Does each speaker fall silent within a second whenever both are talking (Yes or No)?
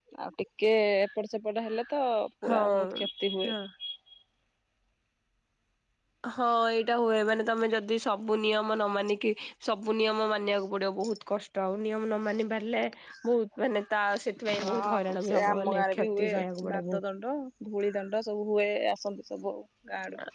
No